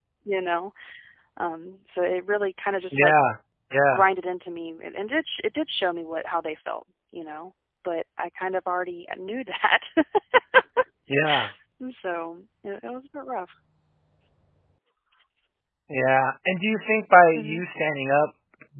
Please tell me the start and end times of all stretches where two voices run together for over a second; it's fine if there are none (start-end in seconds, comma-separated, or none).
none